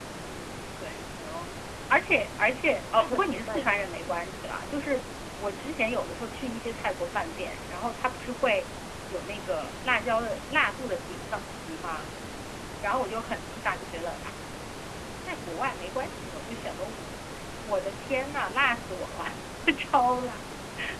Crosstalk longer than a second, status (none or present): present